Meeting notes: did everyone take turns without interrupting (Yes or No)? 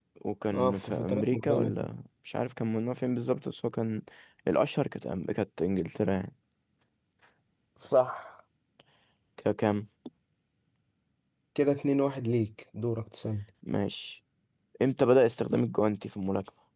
No